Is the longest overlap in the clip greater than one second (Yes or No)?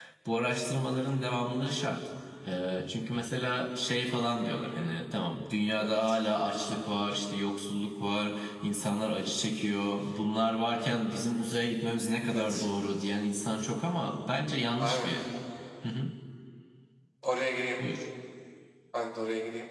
No